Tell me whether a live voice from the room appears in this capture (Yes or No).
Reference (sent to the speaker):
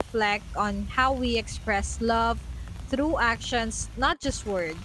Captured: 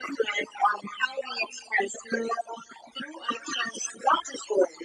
No